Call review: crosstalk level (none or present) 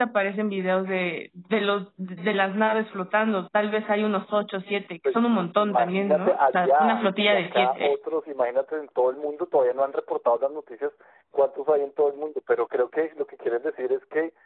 present